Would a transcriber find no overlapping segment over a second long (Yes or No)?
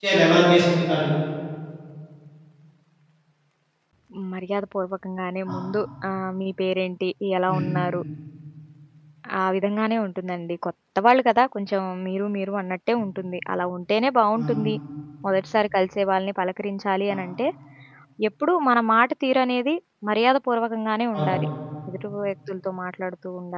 Yes